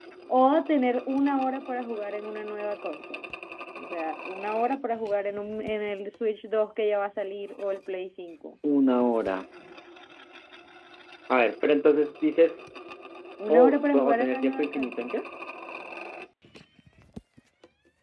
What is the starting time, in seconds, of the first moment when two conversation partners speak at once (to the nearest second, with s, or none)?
13 s